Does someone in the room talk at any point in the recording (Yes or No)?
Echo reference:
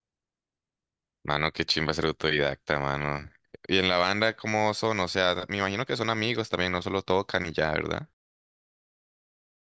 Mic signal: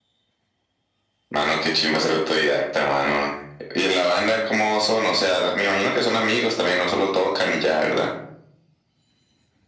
No